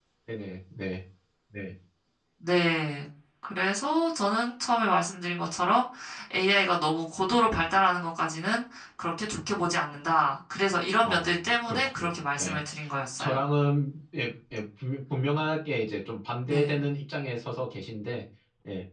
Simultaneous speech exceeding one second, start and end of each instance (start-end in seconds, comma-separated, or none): 11.0-12.6